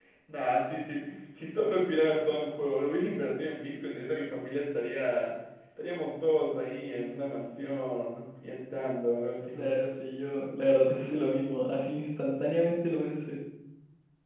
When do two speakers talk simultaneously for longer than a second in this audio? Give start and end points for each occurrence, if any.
none

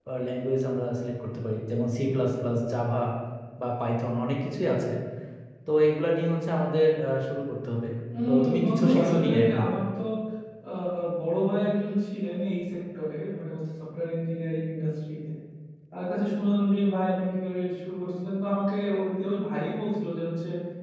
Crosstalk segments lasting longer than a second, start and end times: 8.3-9.6

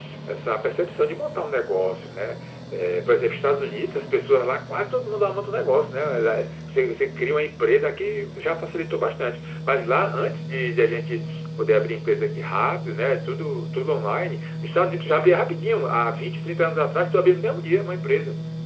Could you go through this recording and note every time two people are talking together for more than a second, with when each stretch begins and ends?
none

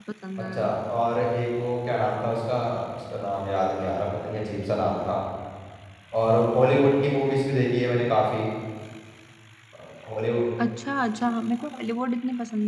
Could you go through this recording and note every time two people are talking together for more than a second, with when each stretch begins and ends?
none

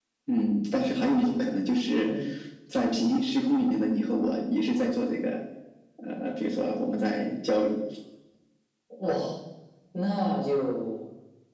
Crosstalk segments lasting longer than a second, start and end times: none

